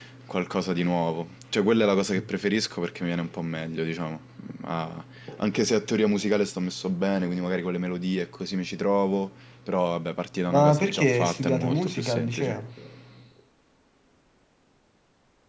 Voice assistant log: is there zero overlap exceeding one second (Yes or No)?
No